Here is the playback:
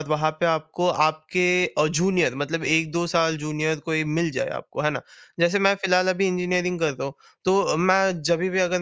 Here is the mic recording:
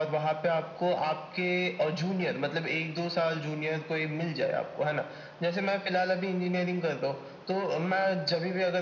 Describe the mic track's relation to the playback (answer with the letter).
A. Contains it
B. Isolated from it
A